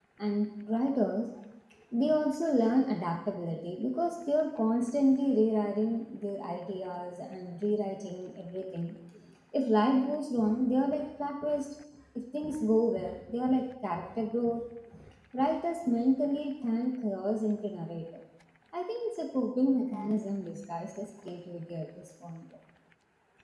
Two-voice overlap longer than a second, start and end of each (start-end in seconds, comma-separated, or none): none